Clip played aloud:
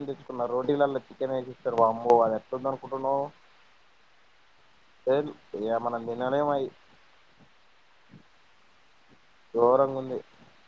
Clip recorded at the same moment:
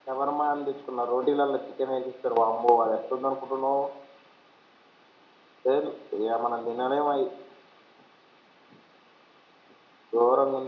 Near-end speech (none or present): none